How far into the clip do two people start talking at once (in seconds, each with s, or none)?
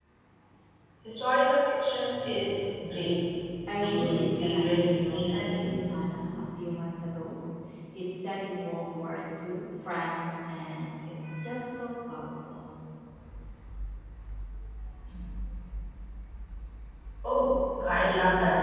3.8 s